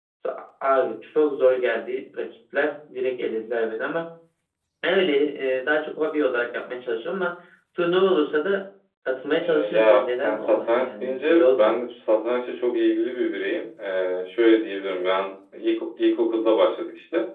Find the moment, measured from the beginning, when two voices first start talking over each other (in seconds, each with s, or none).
9.3 s